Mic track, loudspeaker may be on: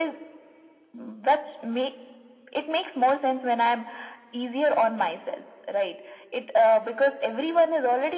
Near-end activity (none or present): none